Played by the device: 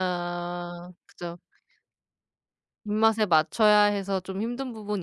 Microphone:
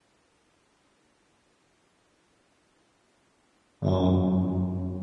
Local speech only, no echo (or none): 어.